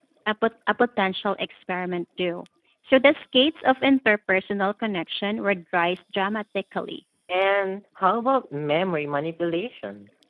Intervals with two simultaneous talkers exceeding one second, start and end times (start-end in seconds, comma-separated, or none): none